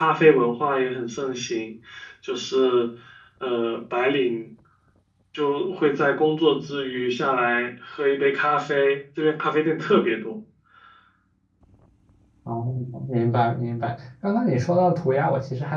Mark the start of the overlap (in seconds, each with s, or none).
none